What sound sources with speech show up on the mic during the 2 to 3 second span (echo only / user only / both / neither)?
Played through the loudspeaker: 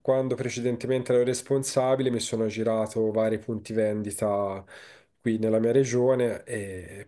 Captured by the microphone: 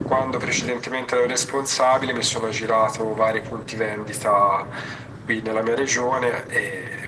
echo only